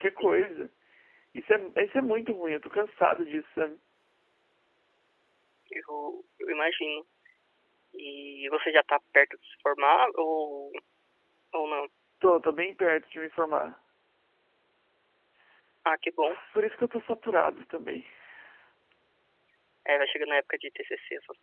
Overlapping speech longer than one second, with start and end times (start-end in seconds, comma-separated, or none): none